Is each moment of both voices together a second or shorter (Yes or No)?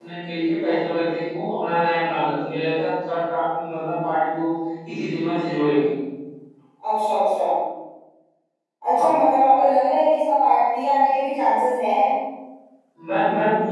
Yes